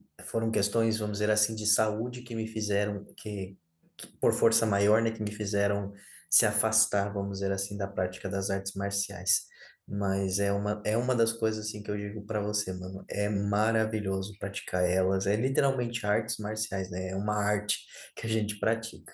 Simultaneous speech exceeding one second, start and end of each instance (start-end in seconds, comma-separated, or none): none